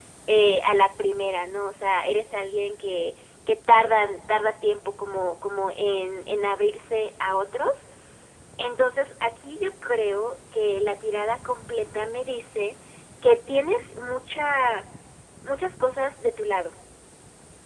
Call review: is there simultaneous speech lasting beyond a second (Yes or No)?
No